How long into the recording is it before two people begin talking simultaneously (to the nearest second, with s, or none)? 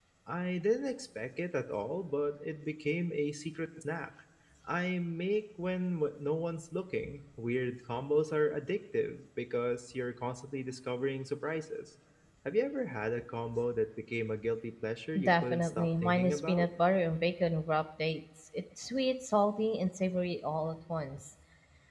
15 s